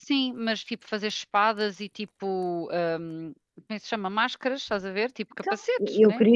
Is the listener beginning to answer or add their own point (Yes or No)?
Yes